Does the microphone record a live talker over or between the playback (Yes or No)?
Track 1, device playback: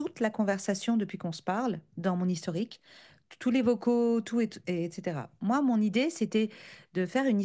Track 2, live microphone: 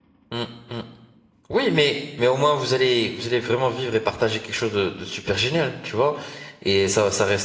Yes